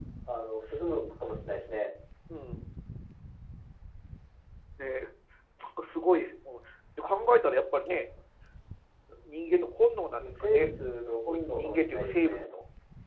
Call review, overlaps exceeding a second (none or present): present